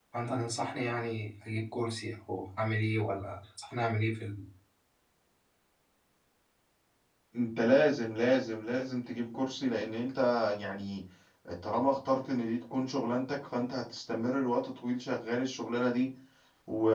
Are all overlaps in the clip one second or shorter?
Yes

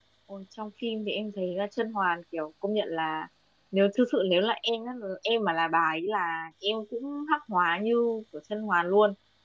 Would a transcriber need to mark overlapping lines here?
No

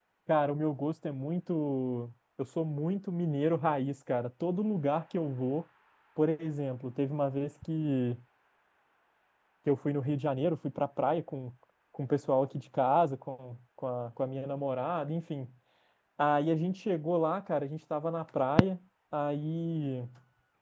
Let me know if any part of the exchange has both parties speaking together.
No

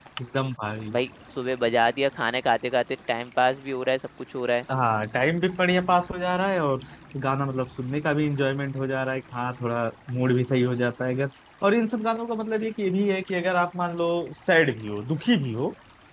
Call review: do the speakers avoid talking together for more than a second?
Yes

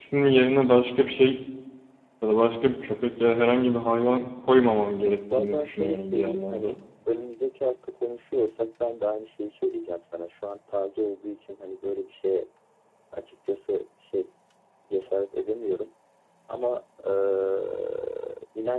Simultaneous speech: Yes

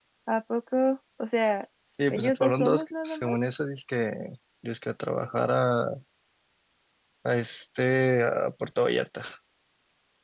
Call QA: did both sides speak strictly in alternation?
No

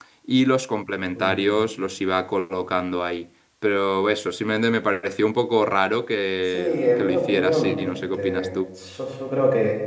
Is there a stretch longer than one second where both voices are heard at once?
Yes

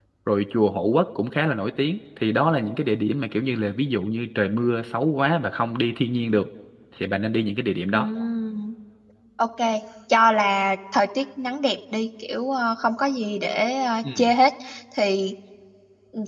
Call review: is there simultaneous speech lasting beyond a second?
No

